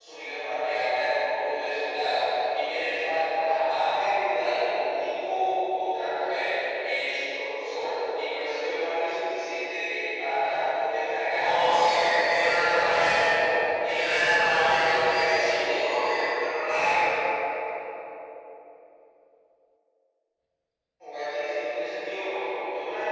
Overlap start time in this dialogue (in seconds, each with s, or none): 11.4 s